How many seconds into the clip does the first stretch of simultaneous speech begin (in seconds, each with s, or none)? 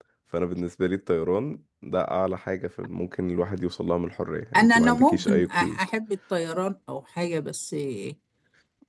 4.5 s